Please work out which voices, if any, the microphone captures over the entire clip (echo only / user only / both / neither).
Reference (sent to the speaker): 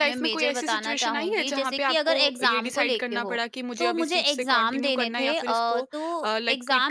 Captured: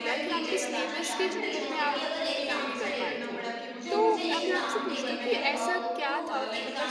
both